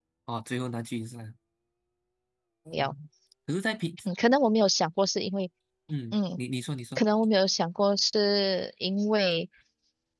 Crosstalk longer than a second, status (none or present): none